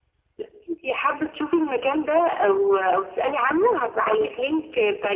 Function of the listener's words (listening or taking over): listening